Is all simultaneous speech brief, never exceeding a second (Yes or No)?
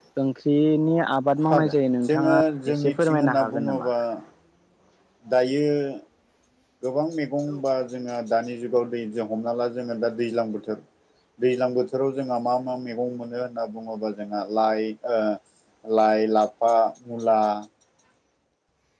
No